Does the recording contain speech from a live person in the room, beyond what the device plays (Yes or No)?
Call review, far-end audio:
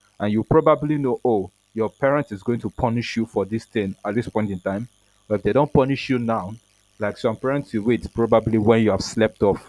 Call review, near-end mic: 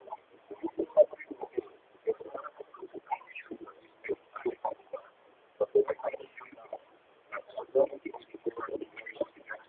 No